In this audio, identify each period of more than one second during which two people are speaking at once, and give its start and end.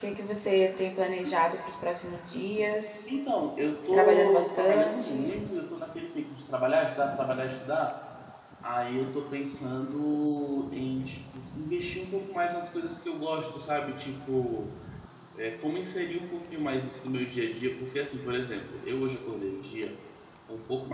3.9-5.3

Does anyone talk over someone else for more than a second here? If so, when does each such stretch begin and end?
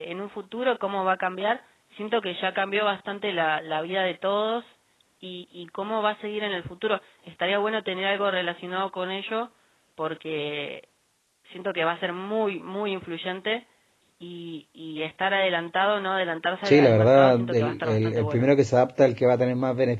16.7-18.5

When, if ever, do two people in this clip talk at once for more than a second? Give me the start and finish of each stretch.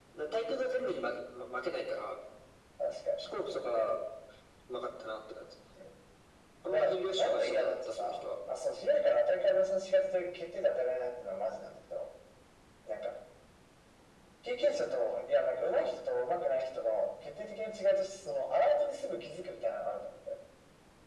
6.6-8.2

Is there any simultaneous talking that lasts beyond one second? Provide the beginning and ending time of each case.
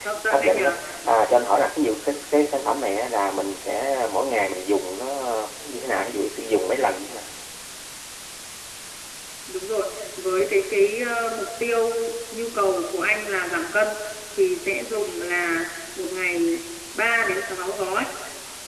none

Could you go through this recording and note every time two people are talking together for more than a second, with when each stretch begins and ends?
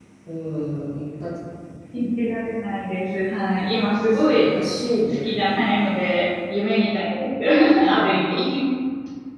none

